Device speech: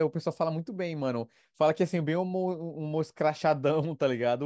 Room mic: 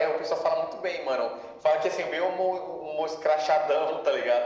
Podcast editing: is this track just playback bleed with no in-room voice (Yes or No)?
Yes